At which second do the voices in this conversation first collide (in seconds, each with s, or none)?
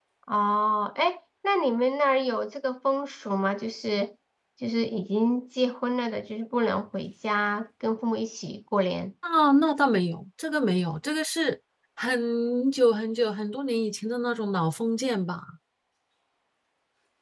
none